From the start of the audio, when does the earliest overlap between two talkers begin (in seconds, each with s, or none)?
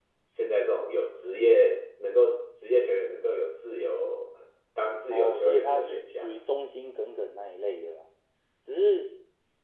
5.1 s